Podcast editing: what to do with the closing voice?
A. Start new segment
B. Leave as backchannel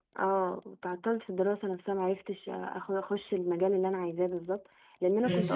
B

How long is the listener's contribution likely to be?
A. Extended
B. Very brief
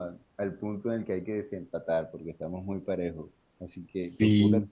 B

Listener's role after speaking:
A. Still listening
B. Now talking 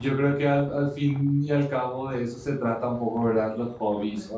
A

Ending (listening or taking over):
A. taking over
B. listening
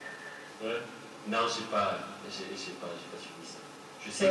B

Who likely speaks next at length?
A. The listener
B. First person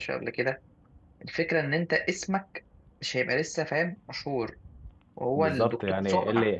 A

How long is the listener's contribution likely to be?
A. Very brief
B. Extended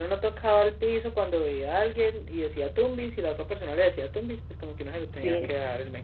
A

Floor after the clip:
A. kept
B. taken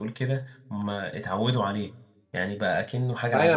B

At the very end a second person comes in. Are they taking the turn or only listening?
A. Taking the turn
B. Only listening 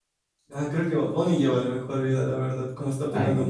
A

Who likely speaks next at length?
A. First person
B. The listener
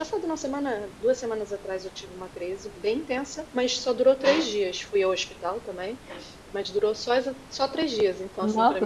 B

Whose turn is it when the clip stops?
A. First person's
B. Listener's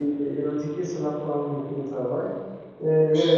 A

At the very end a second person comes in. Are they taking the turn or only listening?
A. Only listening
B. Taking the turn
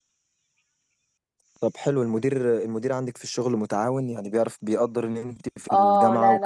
B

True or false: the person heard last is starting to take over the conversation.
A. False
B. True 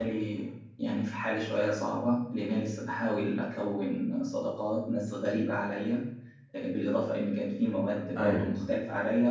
A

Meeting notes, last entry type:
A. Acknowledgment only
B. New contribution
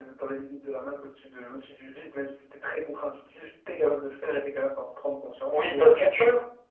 B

